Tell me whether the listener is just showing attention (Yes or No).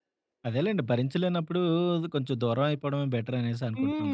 No